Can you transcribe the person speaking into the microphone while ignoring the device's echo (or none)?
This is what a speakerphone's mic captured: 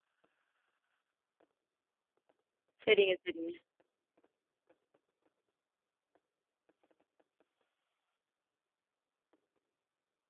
சரிங்க, சரிங்க.